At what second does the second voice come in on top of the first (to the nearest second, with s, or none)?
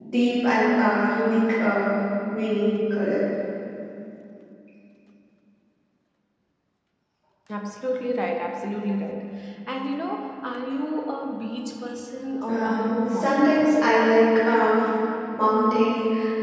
12 s